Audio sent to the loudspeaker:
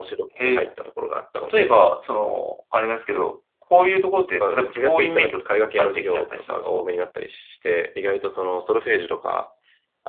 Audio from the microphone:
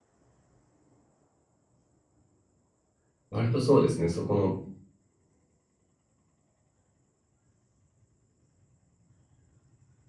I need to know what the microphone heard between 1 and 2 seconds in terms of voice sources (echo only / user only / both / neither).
neither